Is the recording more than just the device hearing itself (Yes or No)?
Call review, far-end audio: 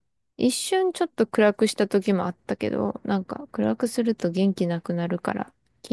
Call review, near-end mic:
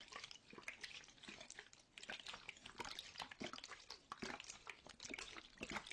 No